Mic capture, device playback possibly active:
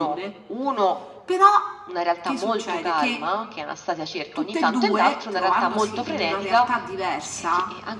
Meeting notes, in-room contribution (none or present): none